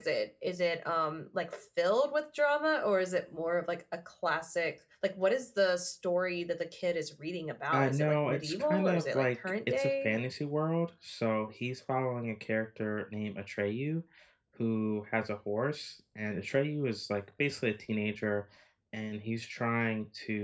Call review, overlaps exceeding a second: present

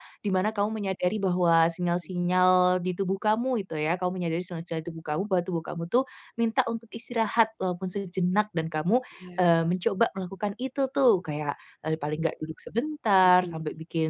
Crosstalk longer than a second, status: none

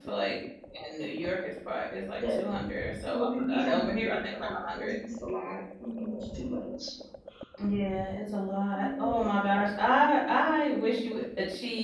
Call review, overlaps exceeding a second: present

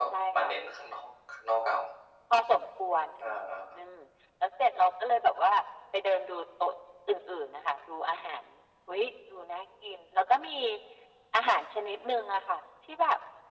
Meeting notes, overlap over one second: none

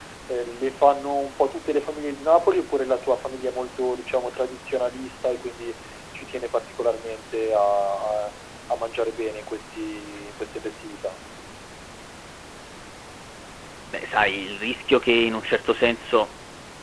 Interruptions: none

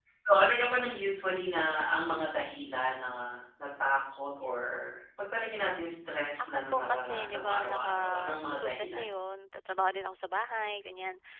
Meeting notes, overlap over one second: present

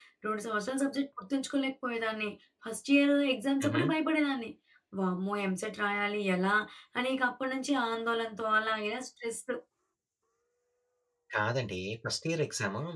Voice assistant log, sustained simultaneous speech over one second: none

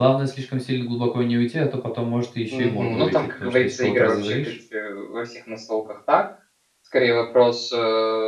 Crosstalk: present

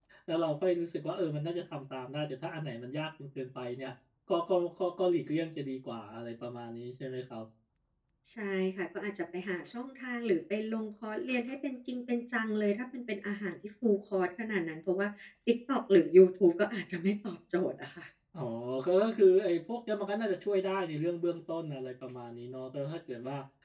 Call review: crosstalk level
none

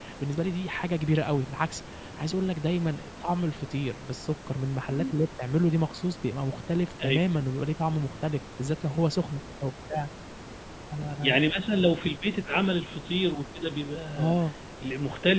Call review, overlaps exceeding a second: none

